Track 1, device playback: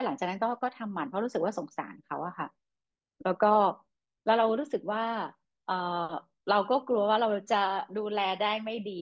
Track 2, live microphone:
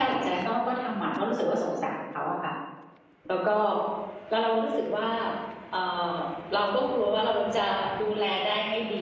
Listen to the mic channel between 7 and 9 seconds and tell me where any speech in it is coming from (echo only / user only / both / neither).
echo only